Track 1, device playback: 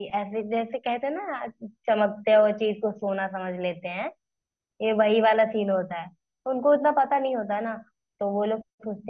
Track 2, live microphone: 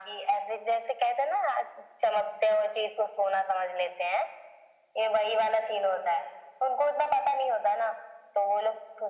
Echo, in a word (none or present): present